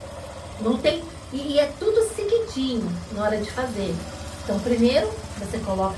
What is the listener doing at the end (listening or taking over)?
listening